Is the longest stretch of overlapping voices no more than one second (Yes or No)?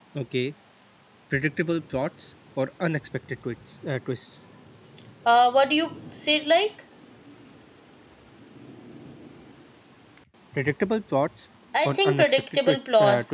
No